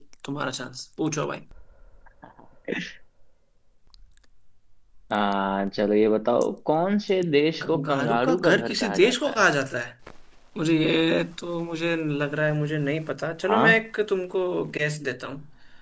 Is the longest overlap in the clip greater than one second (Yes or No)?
Yes